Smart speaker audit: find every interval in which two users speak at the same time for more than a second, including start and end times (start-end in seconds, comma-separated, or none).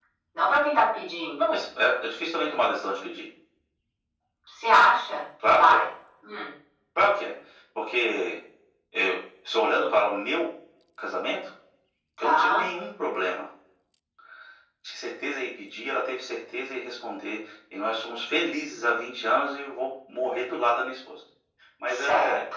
none